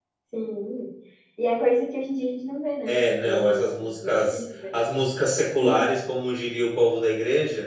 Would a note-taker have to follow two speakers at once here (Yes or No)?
Yes